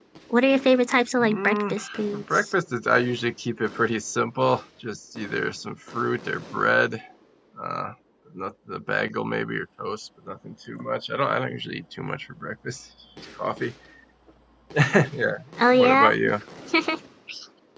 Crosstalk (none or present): present